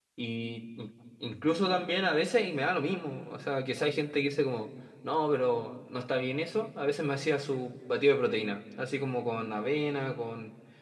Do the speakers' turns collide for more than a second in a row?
No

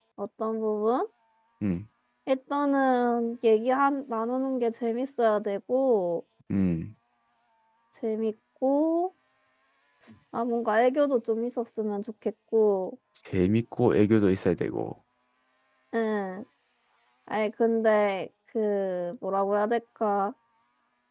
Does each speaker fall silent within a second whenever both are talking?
Yes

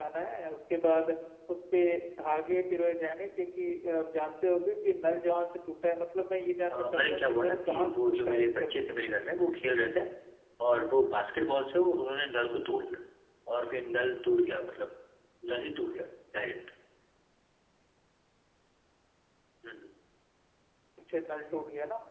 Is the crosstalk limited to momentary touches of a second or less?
No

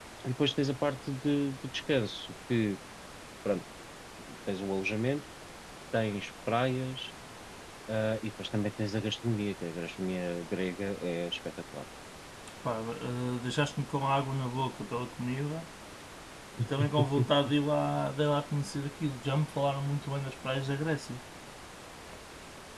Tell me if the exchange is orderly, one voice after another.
Yes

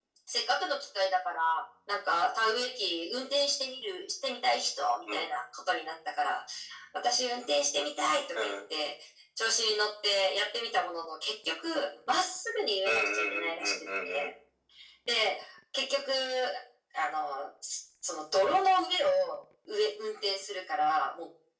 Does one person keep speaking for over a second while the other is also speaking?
Yes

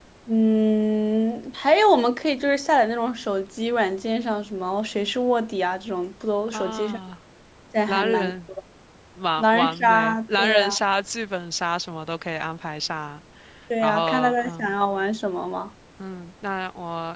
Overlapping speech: Yes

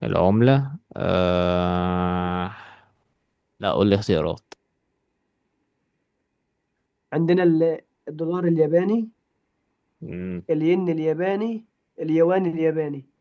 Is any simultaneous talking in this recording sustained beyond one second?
No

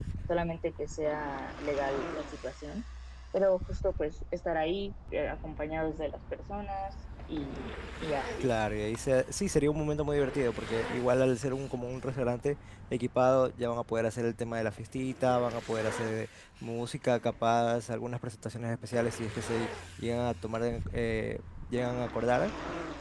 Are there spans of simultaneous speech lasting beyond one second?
No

